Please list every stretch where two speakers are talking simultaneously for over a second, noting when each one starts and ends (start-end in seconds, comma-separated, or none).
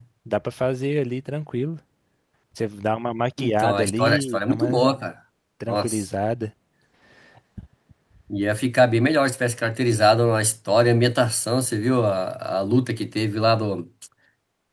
3.4-4.8